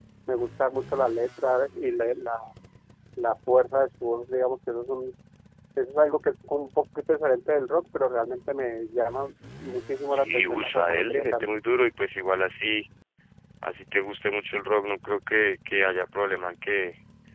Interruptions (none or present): present